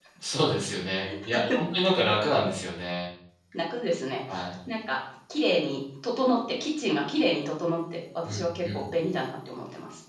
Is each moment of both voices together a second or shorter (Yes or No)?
Yes